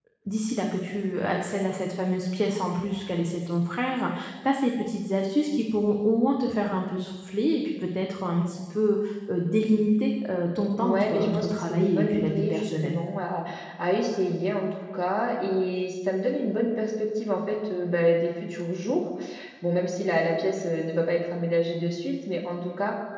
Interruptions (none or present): present